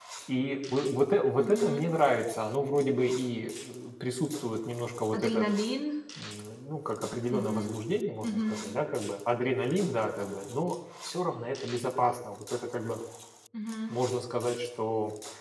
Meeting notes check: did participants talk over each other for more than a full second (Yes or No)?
No